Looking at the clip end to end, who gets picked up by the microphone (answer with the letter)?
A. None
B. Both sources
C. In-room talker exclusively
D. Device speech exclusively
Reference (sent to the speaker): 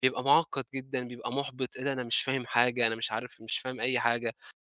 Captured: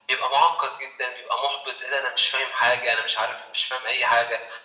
D